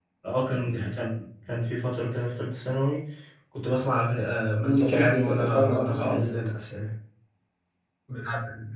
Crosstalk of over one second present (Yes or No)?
Yes